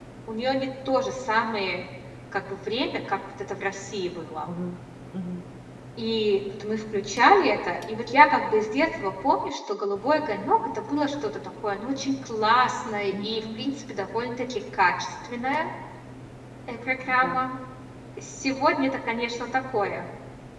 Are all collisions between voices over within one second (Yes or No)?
Yes